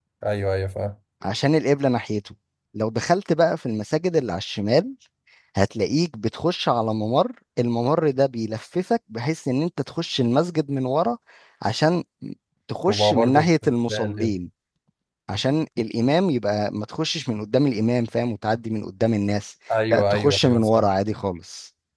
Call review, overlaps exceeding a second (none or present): present